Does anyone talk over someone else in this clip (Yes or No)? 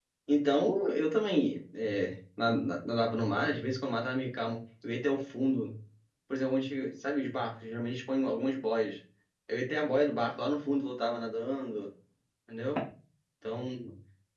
No